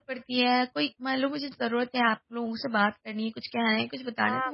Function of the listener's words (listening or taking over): taking over